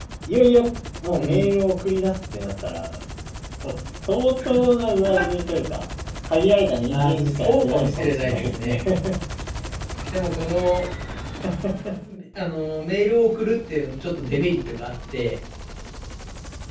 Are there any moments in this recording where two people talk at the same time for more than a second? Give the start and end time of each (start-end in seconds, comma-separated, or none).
6.9-8.7